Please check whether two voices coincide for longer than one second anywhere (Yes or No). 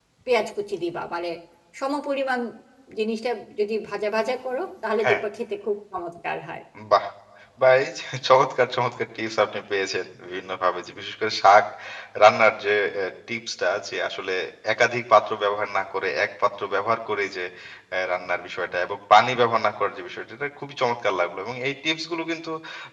No